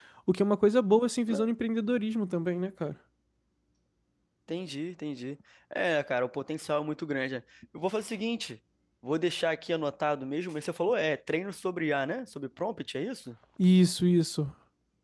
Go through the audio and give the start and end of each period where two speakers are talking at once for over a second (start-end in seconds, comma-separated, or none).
none